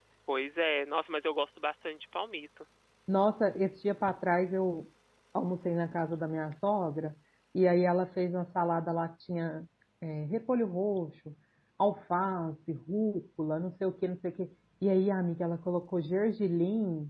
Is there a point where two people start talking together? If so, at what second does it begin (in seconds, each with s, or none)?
none